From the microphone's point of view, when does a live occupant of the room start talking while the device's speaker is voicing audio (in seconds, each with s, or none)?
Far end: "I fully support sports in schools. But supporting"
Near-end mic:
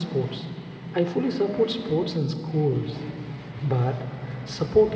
none